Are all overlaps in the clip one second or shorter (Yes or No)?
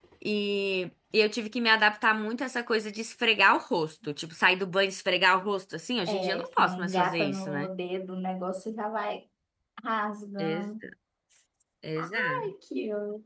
No